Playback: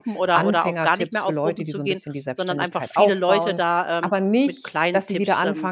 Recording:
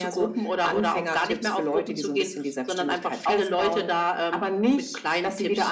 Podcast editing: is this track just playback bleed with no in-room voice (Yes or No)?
Yes